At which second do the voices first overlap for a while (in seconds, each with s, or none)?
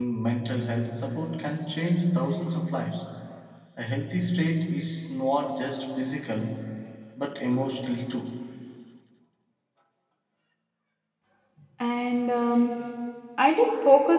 none